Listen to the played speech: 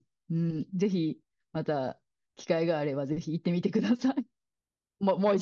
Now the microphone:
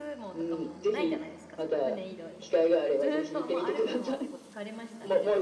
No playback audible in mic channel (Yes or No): No